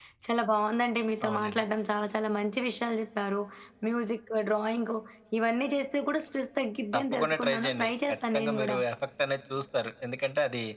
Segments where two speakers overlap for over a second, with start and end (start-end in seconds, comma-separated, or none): 7.0-8.8